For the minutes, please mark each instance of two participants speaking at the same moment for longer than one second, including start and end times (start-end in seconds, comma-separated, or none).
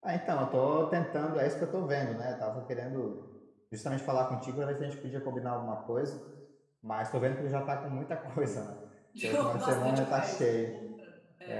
9.2-10.7